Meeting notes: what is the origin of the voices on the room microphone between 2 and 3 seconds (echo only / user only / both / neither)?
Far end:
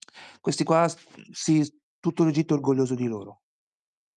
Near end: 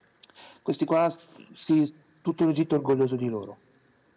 echo only